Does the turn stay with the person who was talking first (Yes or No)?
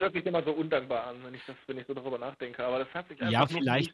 No